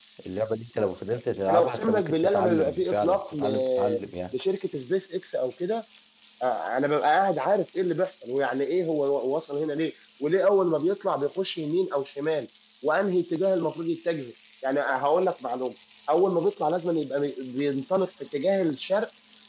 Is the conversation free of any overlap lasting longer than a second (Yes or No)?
No